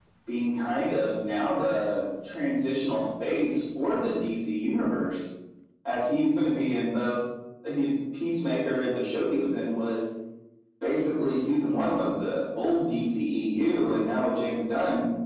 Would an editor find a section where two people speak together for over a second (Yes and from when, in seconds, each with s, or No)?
No